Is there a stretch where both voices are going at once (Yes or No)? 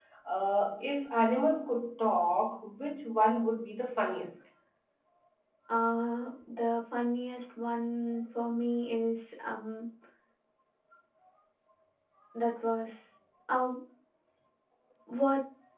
No